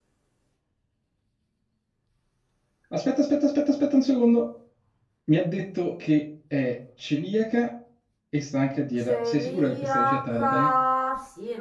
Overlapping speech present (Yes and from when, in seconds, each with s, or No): Yes, from 9.0 s